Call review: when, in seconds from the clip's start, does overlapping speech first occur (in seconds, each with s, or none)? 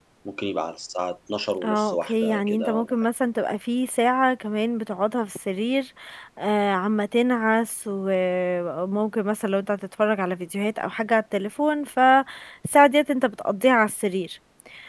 1.6 s